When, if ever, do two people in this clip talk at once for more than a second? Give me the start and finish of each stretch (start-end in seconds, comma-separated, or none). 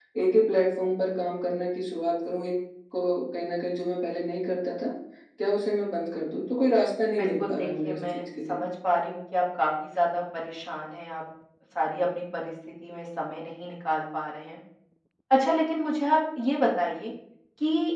7.2-8.6